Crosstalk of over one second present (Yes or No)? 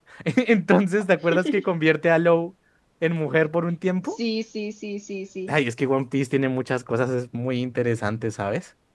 No